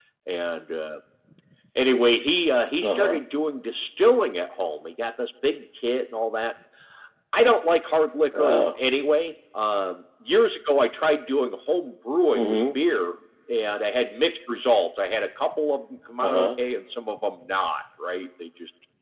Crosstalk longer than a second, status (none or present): none